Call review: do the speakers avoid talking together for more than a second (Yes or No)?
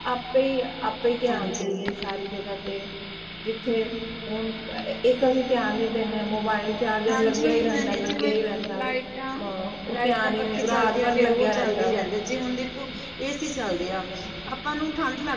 No